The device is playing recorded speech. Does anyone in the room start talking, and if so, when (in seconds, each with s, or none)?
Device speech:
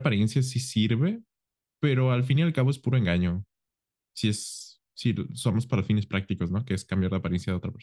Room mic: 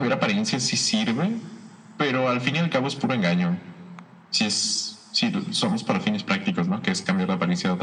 none